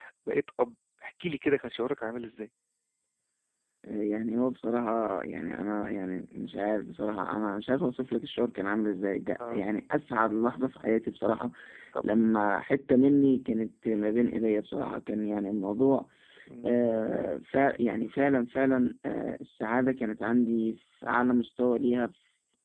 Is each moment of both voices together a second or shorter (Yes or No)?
Yes